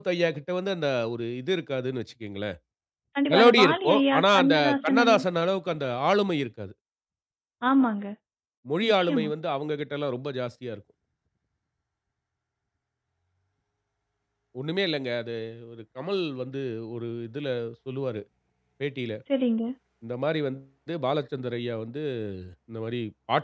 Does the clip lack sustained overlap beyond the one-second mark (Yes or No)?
No